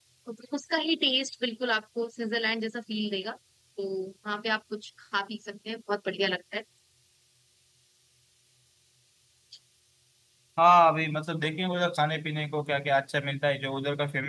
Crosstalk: none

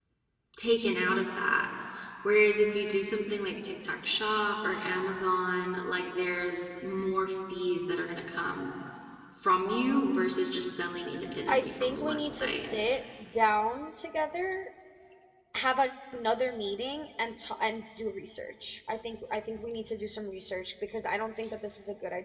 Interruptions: present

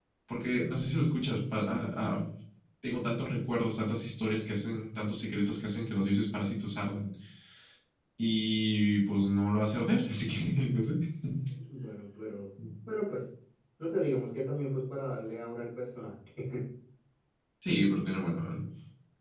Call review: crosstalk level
none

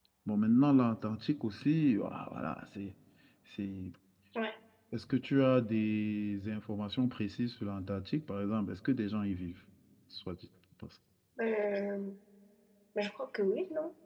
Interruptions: none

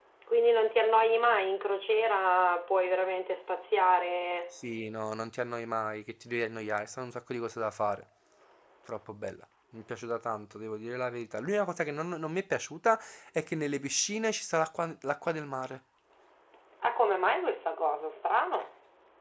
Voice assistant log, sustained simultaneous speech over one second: none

